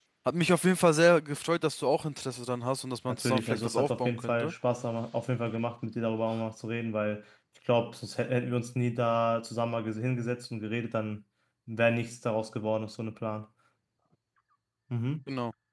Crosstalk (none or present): present